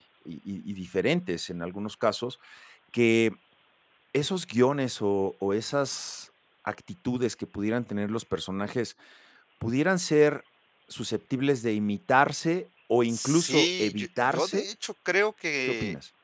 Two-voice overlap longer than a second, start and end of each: 13.1-14.7

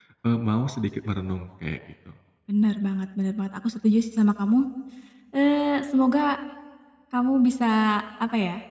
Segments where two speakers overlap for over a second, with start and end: none

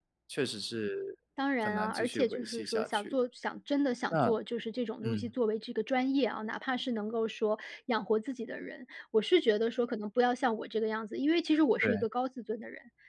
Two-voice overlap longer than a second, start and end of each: 1.6-3.1

